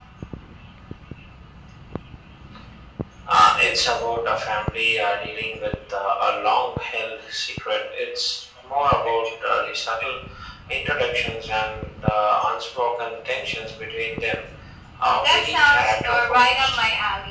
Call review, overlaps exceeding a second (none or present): present